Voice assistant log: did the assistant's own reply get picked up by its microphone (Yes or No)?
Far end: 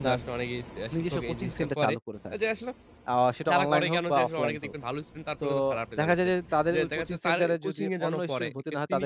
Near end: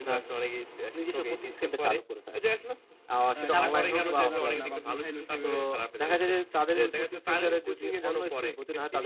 Yes